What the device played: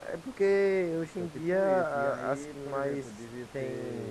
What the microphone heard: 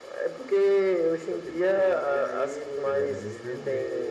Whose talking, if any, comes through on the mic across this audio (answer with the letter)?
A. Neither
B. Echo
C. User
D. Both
D